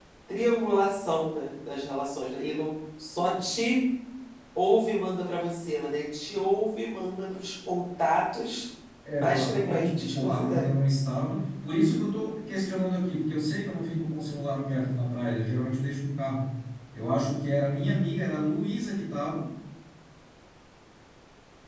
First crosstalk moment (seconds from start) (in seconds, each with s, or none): 9.2 s